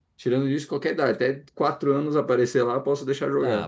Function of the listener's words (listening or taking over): taking over